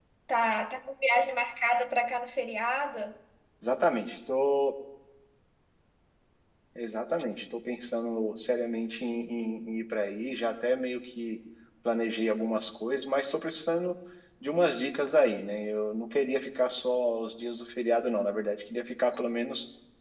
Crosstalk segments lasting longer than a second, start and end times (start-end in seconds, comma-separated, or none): none